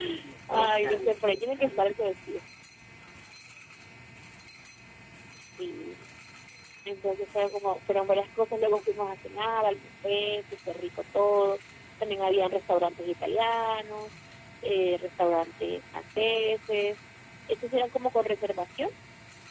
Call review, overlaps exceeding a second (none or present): present